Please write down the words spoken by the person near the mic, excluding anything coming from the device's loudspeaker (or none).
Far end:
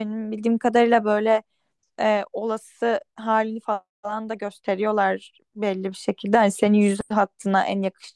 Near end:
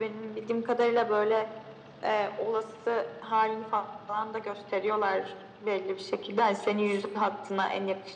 none